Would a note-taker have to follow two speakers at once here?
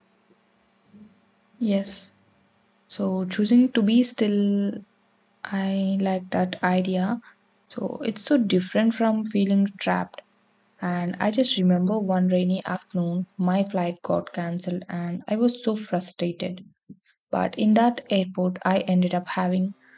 No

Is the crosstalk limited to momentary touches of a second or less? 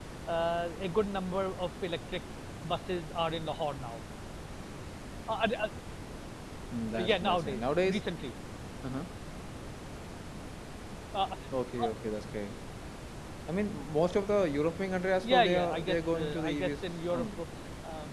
No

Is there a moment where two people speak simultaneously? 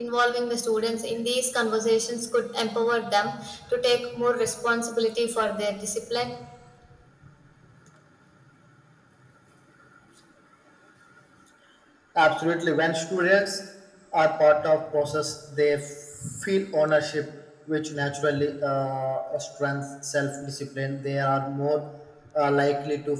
No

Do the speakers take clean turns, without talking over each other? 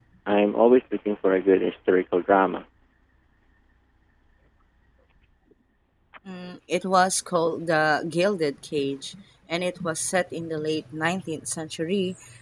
Yes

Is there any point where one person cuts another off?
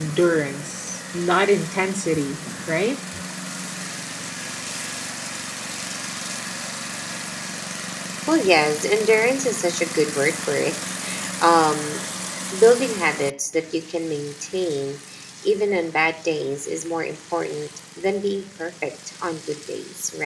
No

